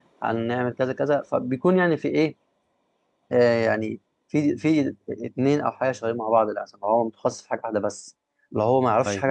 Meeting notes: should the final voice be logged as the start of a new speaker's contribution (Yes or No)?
Yes